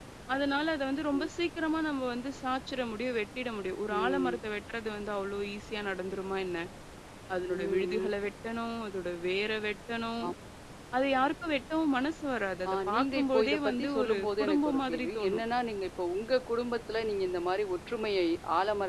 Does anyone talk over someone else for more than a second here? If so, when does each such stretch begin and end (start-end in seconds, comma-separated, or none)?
12.7-15.4